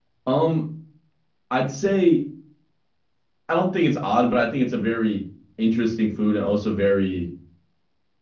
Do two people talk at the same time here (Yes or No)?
No